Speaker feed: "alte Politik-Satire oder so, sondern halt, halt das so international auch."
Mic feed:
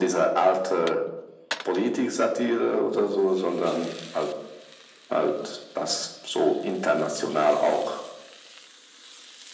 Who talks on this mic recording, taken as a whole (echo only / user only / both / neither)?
echo only